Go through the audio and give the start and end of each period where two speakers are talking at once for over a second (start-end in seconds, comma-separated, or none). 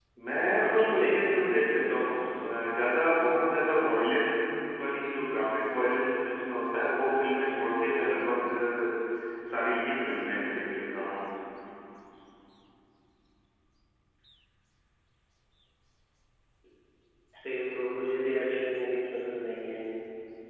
0.7-2.5